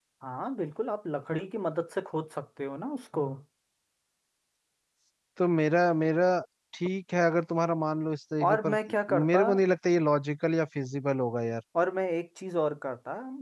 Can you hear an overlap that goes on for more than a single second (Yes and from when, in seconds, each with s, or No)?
No